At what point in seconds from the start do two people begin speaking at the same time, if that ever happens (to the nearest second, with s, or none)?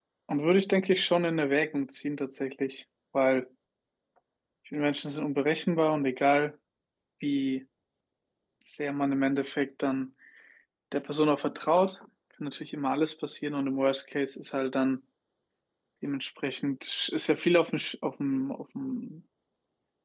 none